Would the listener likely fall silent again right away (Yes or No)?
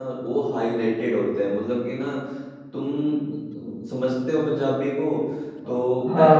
Yes